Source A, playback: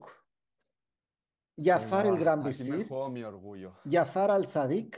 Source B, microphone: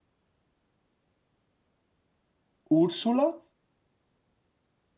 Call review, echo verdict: none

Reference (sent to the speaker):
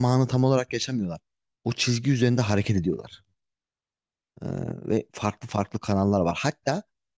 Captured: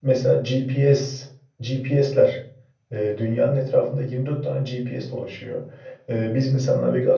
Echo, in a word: none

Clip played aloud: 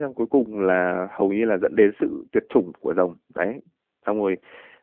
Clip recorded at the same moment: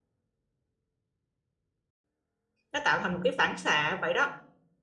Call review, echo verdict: none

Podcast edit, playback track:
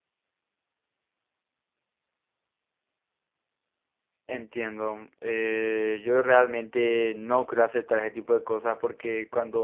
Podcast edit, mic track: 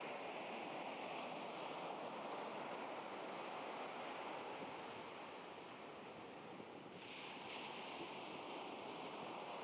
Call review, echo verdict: none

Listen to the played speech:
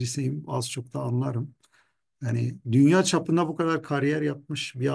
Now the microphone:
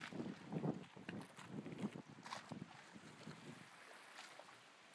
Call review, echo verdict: none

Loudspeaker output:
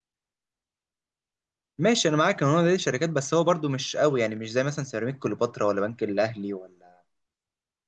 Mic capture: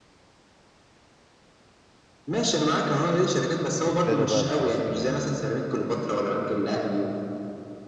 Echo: present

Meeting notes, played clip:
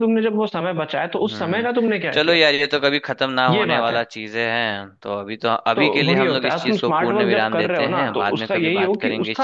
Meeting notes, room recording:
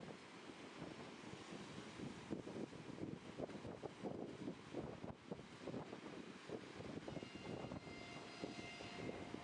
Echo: none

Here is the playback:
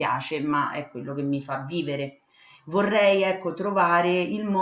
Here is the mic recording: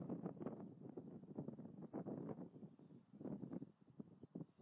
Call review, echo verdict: none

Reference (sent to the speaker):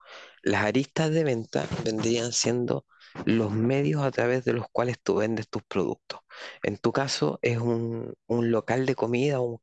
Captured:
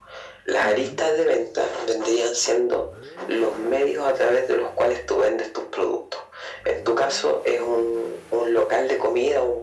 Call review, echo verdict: present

